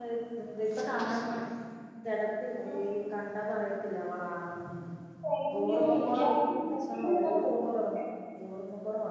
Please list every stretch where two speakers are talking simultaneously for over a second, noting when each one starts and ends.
5.6-7.6

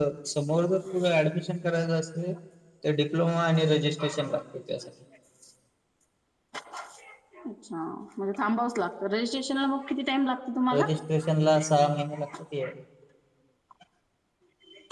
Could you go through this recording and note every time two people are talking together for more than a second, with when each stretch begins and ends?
none

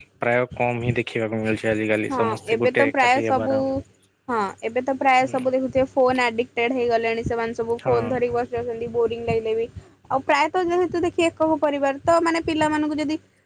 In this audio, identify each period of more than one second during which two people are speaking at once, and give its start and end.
2.1-3.5

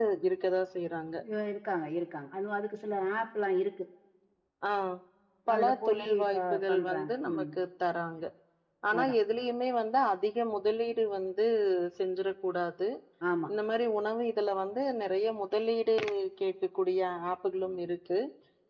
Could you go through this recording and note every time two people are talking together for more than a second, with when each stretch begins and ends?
5.5-7.4

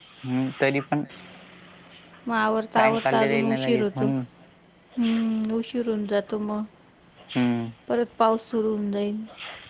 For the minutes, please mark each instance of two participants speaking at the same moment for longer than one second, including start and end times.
2.8-4.1

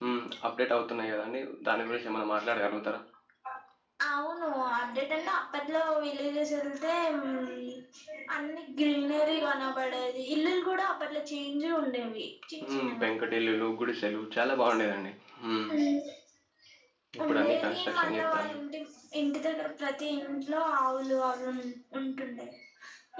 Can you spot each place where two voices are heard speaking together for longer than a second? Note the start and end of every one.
17.3-18.6

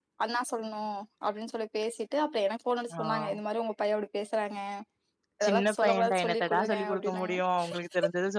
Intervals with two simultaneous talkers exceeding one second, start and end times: 5.5-7.3

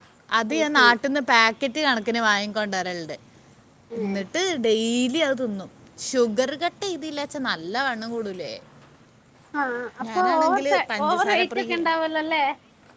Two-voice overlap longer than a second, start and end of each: 10.2-11.8

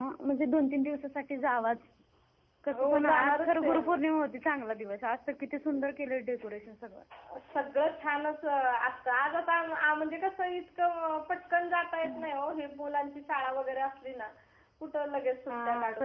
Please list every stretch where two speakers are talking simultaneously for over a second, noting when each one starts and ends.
2.8-4.0

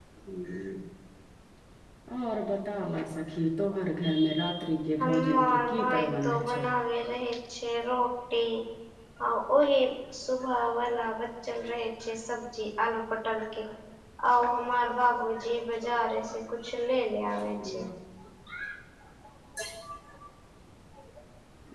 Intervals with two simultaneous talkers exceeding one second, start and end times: 5.0-6.6

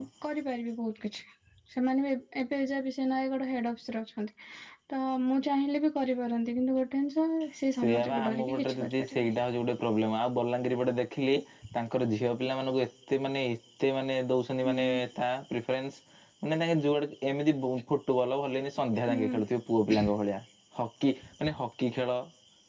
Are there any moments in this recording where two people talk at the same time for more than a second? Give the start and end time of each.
7.8-9.3

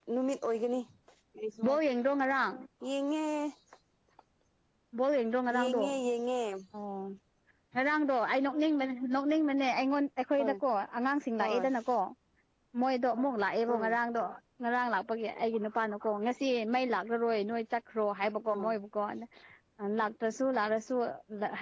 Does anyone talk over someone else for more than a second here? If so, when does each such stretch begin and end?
none

